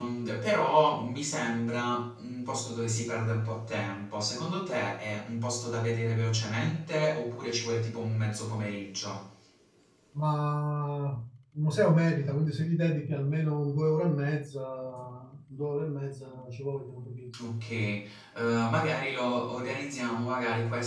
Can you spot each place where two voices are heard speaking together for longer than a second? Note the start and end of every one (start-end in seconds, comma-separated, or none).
none